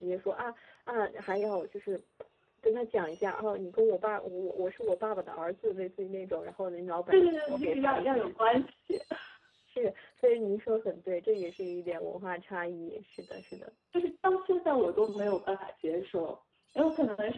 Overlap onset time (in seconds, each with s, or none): 7.1 s